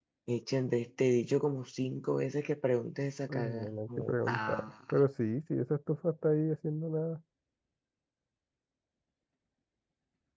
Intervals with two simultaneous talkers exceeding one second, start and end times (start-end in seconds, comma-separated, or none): 3.3-4.7